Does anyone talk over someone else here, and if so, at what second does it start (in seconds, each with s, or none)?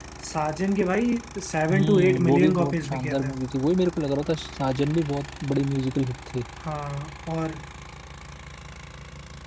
1.7 s